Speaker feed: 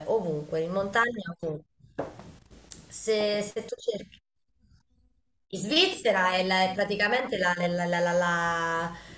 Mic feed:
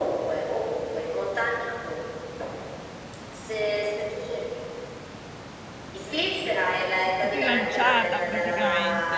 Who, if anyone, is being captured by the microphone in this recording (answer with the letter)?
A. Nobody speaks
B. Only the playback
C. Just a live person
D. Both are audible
D